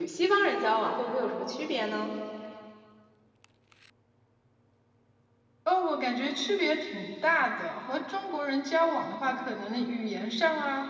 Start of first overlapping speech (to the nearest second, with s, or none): none